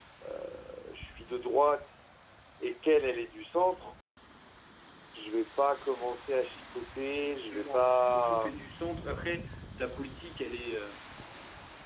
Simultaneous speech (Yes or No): Yes